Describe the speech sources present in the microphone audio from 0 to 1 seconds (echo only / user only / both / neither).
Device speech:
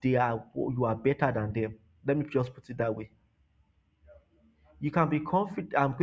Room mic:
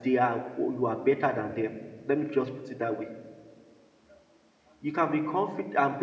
echo only